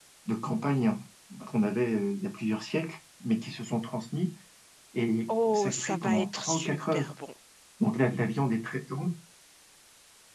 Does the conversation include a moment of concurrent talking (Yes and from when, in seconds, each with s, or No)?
Yes, from 5.5 s